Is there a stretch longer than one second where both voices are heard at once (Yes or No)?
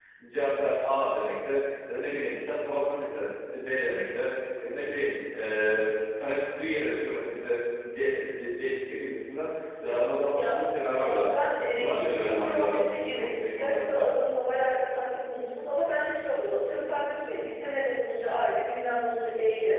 Yes